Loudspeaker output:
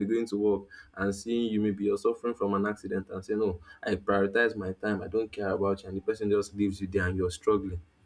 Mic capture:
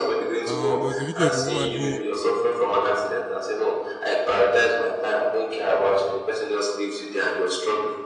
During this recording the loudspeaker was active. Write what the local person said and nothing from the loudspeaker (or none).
Um, there was a video of a woman who